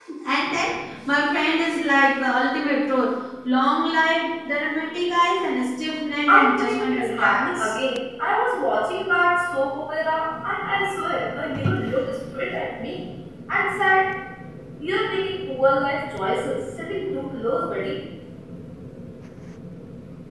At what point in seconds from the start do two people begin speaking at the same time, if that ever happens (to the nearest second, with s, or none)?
6 s